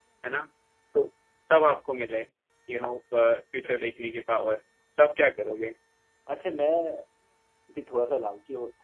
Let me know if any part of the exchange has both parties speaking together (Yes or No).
No